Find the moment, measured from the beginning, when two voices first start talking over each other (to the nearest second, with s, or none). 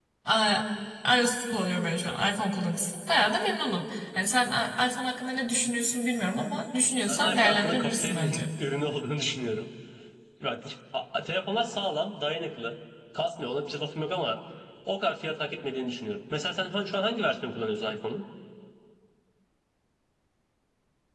7 s